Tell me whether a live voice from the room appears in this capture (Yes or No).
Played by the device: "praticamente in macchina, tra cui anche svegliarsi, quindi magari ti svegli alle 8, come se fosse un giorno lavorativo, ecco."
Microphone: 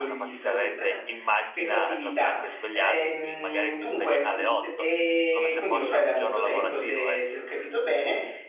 Yes